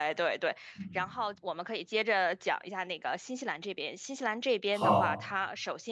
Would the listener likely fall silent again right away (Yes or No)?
Yes